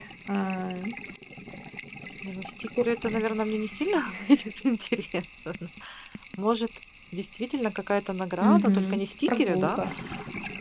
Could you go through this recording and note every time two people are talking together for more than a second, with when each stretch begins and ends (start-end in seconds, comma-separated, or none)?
8.4-9.8